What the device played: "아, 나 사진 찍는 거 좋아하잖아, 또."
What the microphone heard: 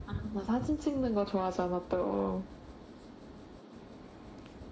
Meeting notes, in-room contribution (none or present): none